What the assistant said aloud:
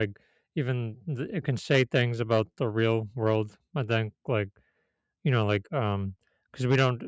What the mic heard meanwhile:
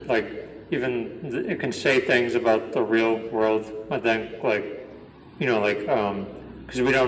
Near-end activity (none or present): none